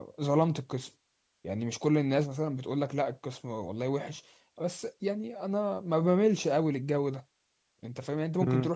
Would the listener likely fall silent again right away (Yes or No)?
Yes